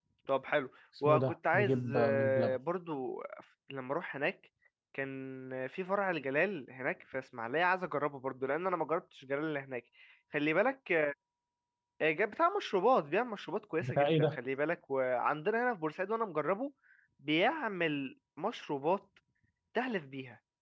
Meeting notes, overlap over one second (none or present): present